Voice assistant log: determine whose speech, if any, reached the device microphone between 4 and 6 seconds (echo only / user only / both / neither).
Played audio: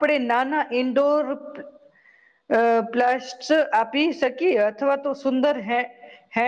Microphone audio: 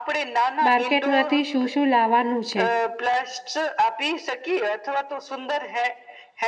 echo only